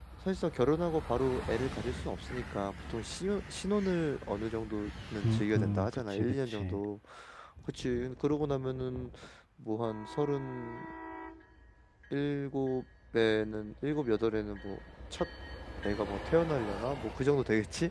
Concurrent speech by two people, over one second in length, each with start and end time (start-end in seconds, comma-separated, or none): 5.2-6.8